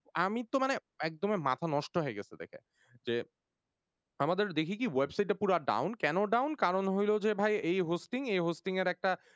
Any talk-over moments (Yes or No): No